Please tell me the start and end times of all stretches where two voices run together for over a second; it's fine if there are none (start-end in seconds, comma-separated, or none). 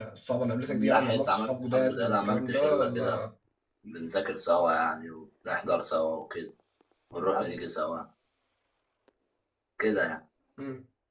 0.7-3.2